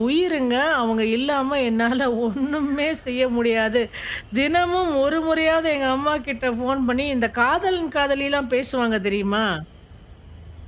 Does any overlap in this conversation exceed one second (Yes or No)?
No